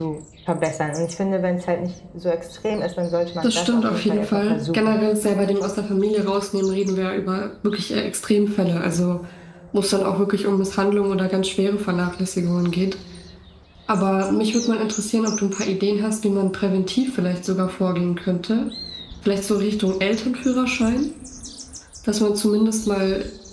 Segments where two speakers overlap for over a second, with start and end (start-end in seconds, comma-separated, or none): 3.4-5.0